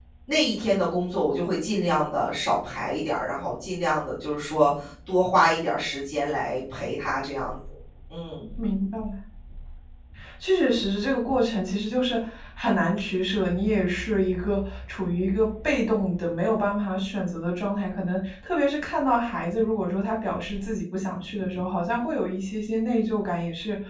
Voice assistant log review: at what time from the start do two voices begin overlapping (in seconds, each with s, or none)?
none